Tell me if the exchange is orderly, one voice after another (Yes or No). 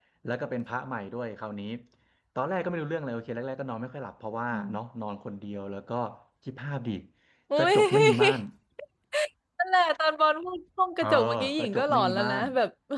No